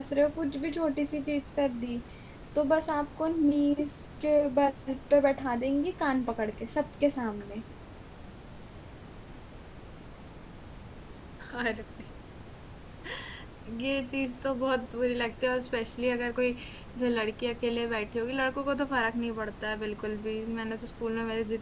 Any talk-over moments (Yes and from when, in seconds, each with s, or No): No